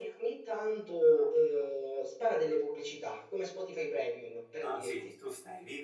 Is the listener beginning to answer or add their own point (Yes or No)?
Yes